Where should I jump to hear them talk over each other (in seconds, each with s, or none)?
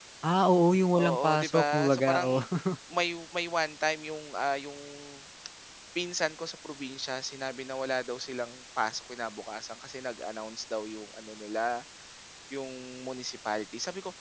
1.0 s